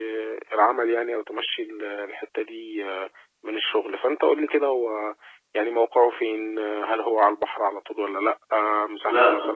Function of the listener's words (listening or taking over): listening